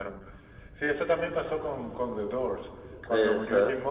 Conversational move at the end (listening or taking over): listening